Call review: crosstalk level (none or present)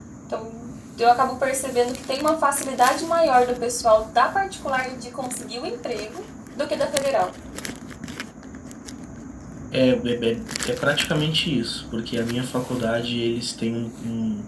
none